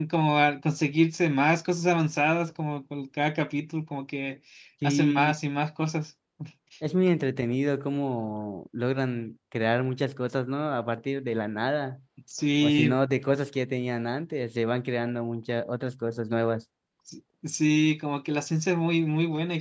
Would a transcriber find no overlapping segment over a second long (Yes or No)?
Yes